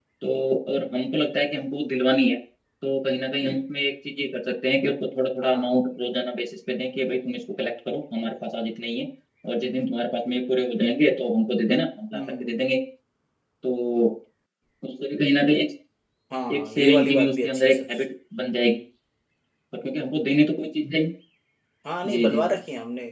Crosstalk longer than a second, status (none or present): present